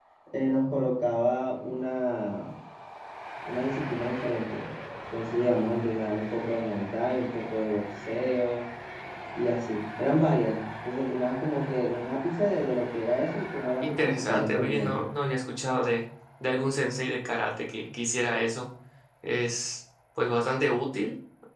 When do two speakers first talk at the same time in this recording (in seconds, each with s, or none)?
13.8 s